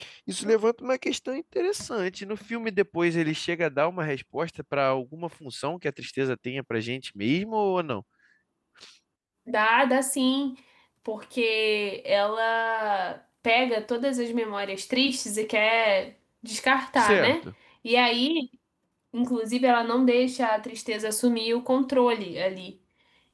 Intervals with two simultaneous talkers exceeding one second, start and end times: none

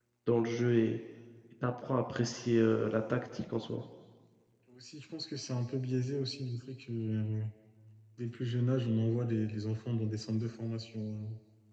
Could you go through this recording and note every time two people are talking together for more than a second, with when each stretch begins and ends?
none

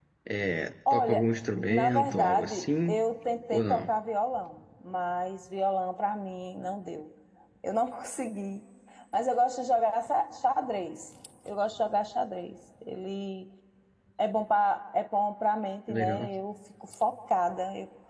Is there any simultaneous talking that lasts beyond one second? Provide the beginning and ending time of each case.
1.7-3.0

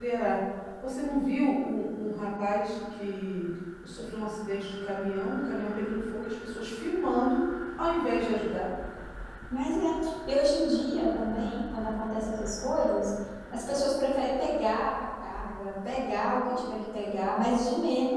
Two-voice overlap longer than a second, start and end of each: none

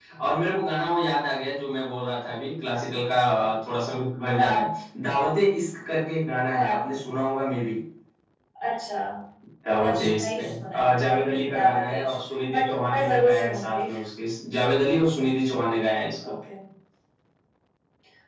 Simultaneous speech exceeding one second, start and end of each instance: 9.8-12.1, 12.5-13.8

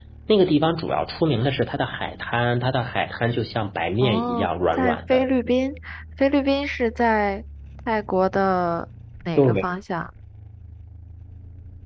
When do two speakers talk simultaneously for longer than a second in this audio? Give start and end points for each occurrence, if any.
4.0-5.2

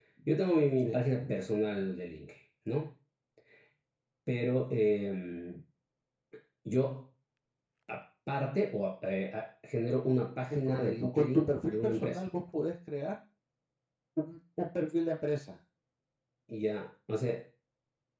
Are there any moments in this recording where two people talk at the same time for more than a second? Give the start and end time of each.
10.5-12.2

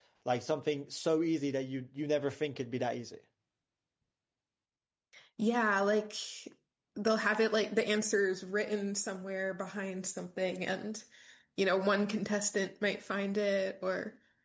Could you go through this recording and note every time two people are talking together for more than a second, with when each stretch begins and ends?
none

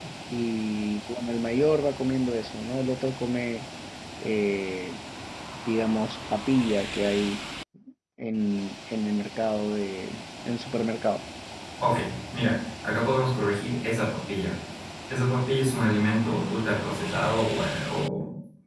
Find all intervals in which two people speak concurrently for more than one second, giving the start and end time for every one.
none

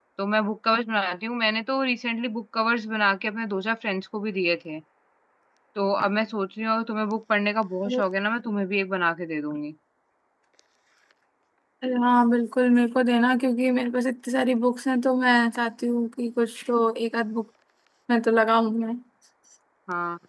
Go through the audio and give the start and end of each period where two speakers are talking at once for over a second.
none

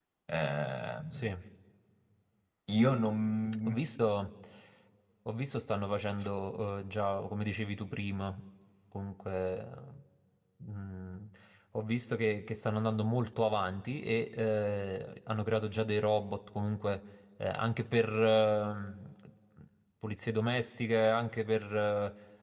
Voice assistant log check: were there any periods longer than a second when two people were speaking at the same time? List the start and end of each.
none

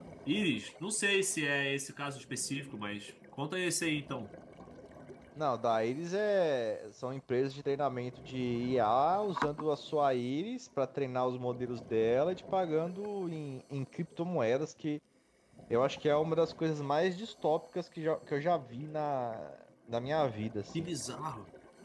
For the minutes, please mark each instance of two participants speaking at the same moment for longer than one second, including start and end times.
none

